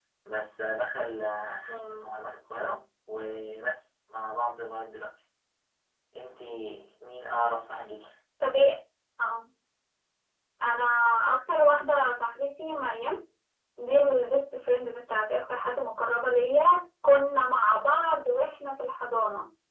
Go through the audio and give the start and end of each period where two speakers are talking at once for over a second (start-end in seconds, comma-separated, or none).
none